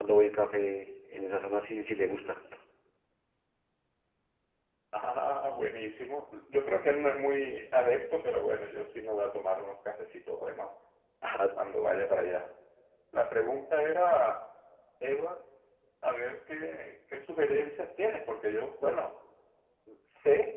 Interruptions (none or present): none